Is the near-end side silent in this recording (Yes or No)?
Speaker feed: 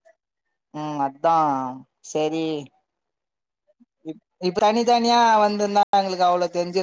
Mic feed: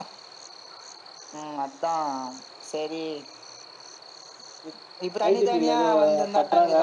No